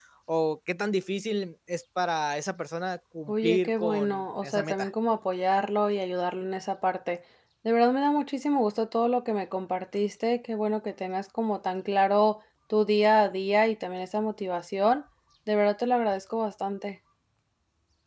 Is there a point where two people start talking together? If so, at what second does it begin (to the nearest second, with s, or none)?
3 s